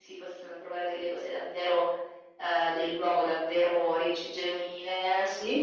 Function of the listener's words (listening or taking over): listening